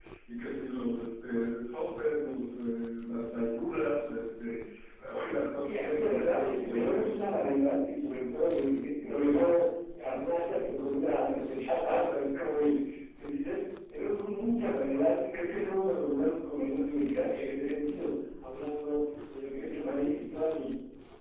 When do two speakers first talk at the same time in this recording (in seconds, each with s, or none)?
5.6 s